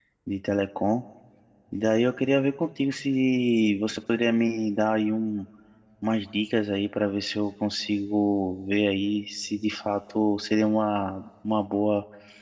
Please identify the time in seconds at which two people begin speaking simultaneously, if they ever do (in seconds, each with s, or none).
none